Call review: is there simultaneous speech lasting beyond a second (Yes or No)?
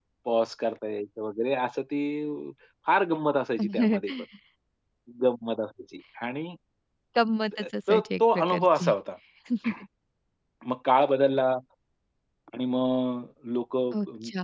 Yes